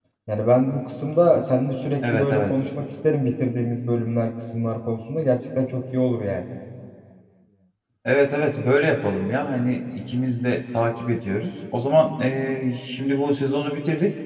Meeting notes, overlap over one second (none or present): none